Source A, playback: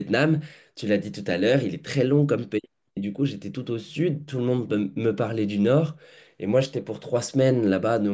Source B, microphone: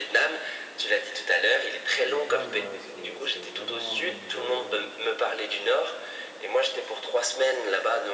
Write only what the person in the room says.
Vietnam, ouais, c'est c'est vraiment une belle euh,

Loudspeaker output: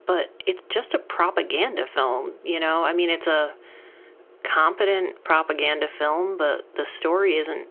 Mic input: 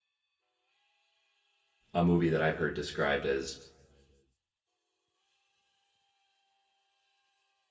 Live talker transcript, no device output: a movie that I've heard described as

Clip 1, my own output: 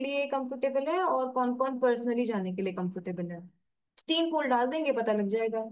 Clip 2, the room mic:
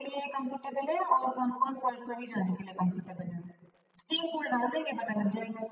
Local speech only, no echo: none

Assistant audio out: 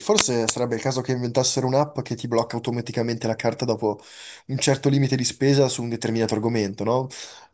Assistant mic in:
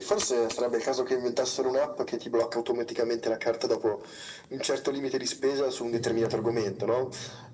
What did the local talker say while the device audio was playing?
Sì, sì.

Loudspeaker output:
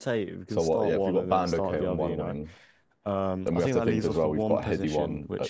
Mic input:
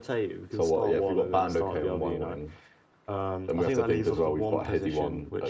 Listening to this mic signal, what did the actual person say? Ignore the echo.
none

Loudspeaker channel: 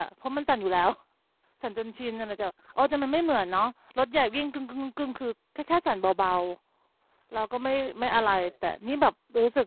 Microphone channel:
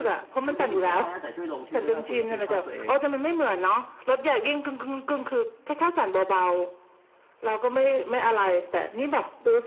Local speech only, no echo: คุณจะอยู่ก็ได้นะแต่ช่วยลงชื่อด้วยว่าคุณรับผิดชอบตัวเอง

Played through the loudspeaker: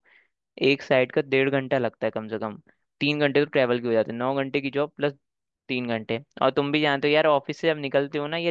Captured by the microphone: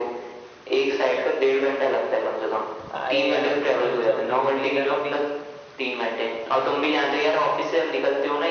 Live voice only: अरे यार कुल समझो मेरा अभी

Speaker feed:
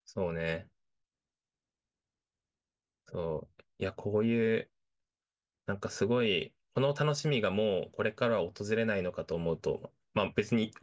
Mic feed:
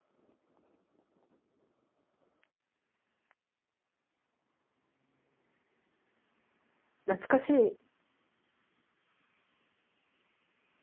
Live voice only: 懐かしい。

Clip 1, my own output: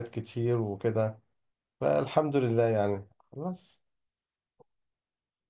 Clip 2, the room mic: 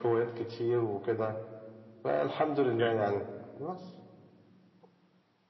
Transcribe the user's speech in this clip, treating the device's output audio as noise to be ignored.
يعني

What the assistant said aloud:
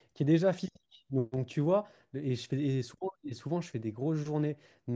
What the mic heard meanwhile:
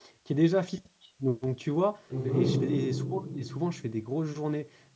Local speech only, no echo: Mhm.

